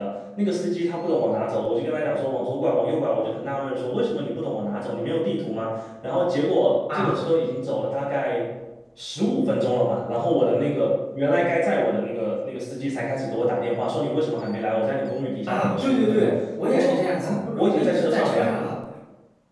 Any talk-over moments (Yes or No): Yes